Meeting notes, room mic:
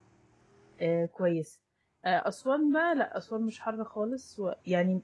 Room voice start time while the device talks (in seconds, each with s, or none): 0.8 s